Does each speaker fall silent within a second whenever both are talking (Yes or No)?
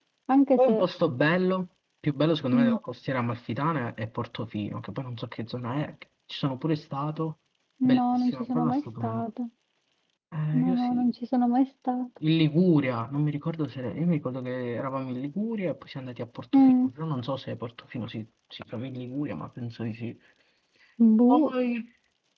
No